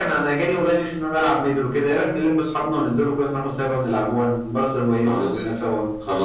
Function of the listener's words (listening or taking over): taking over